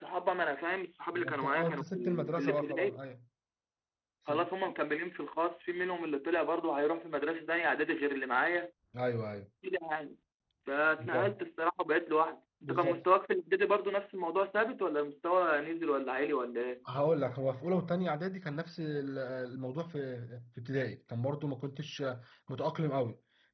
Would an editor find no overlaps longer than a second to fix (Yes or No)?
No